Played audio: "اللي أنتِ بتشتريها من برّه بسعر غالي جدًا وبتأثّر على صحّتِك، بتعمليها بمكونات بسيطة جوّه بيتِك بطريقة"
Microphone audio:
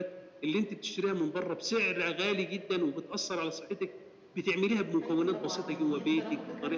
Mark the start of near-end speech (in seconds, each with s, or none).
5.0 s